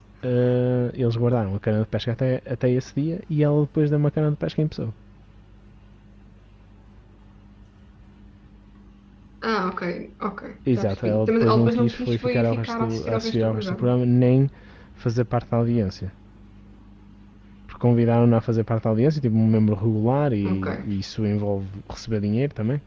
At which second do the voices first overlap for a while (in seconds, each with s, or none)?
10.7 s